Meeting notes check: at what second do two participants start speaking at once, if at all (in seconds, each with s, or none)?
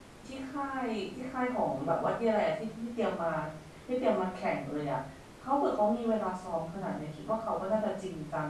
none